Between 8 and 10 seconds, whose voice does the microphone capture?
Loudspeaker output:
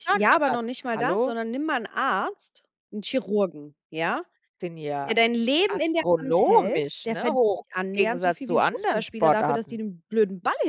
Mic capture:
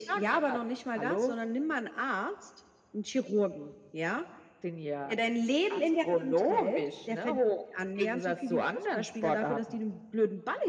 echo only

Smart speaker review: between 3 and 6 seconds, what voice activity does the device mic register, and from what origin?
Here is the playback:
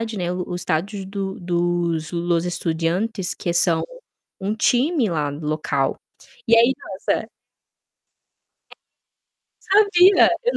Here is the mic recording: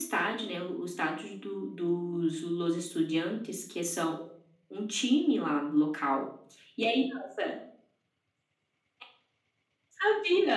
echo only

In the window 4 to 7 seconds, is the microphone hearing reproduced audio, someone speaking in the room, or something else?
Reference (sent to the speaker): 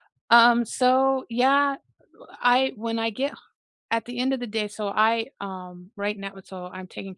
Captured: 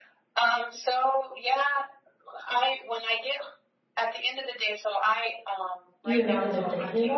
both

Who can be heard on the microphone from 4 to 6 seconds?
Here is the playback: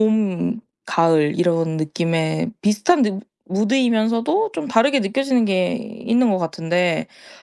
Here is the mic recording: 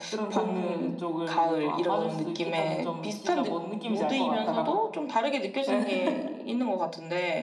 both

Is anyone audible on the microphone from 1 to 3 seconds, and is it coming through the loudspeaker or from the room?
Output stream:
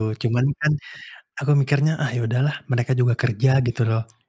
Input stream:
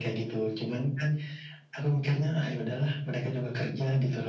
echo only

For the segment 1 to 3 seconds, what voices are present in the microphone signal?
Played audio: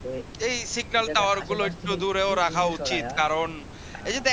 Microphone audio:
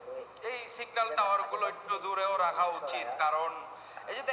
echo only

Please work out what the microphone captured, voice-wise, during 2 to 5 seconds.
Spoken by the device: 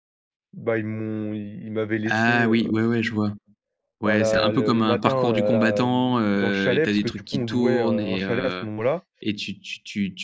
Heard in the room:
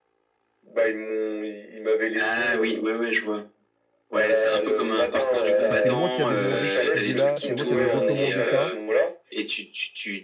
echo only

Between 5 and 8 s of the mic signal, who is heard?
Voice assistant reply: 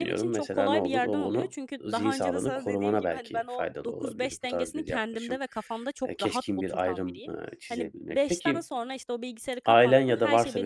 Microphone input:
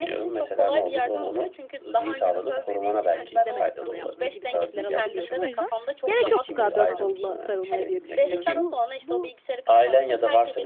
both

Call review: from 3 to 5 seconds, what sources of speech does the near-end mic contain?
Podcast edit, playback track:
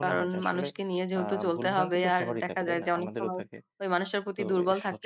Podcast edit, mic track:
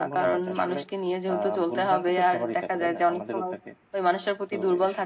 echo only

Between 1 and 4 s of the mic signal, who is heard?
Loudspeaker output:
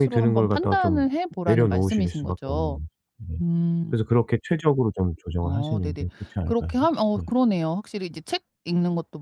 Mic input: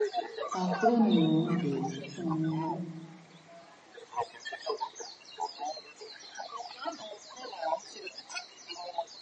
both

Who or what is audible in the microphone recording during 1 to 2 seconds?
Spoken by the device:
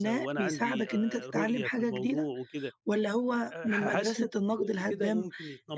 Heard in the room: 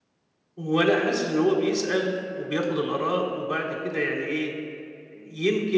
user only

